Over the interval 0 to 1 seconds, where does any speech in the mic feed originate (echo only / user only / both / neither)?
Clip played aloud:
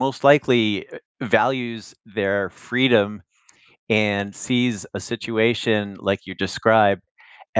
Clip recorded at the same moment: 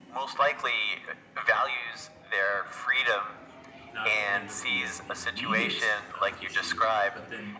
echo only